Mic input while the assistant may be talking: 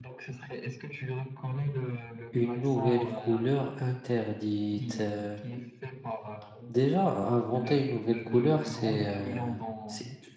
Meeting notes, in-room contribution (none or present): present